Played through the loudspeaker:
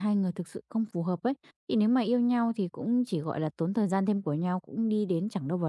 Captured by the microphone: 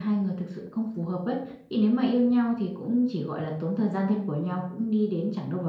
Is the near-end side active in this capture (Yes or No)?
No